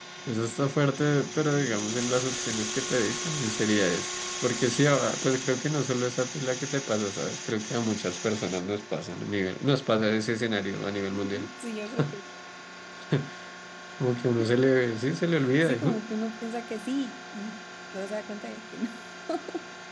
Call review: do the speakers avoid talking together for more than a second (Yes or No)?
Yes